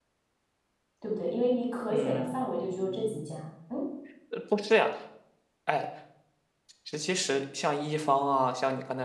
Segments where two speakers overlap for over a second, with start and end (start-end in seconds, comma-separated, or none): 1.9-3.4